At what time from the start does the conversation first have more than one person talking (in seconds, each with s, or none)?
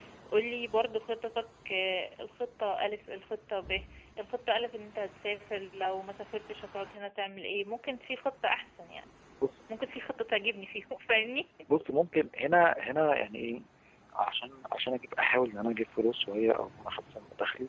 none